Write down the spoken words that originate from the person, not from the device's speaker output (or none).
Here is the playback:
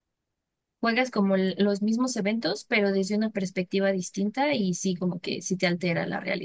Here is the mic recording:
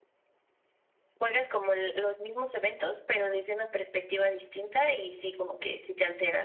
none